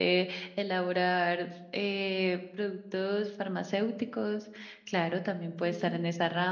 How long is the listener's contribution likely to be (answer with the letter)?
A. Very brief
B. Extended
A